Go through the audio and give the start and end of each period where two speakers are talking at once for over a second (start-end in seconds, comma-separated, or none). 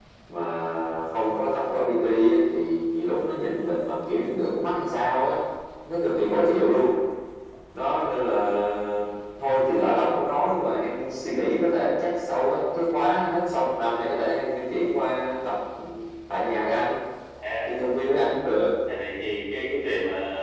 none